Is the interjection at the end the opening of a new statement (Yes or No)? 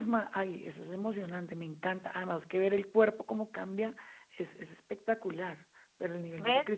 Yes